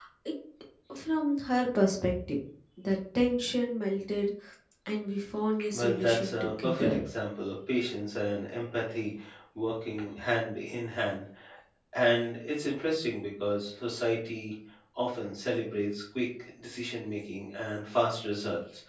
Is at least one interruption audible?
Yes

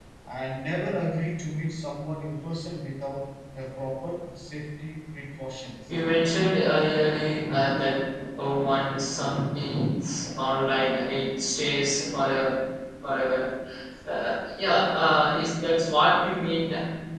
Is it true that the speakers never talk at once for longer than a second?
Yes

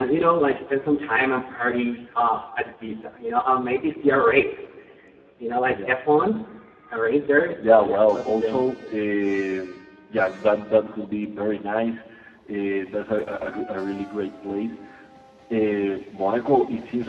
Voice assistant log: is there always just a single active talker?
No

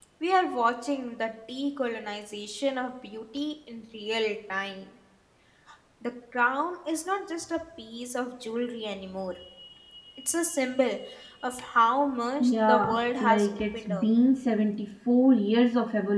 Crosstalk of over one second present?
Yes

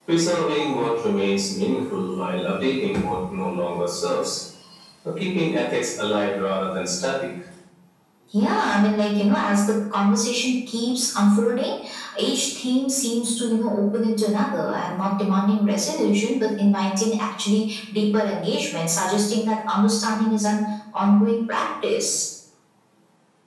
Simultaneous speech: No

